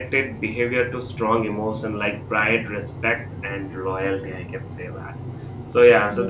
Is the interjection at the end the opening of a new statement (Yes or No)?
No